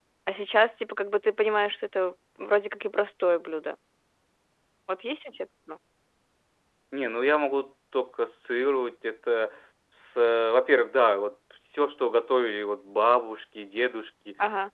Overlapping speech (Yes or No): No